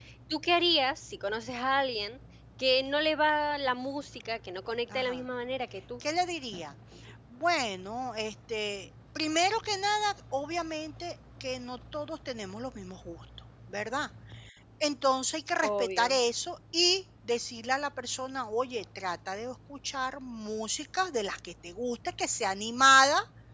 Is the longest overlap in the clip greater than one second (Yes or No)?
No